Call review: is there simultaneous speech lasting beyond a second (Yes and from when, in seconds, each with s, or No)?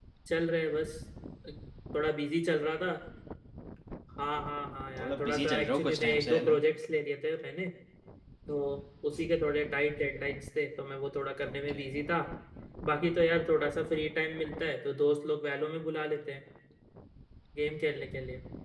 Yes, from 5.0 s